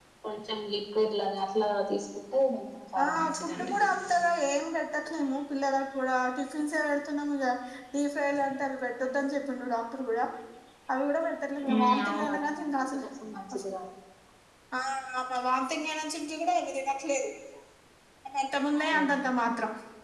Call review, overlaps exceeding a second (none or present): present